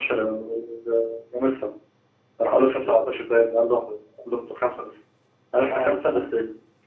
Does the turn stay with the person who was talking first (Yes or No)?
Yes